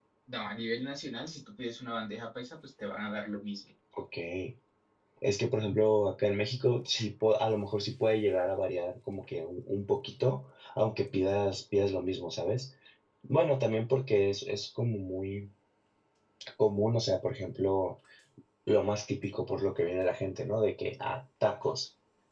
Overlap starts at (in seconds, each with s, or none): none